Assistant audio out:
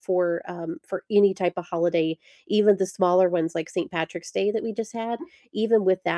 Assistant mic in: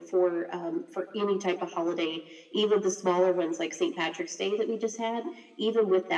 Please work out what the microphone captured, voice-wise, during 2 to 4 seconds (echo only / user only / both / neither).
echo only